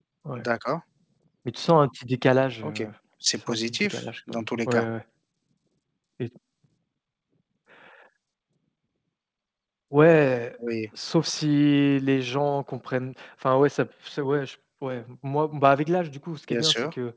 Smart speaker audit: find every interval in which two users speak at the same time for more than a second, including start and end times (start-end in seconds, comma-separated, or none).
3.5-4.8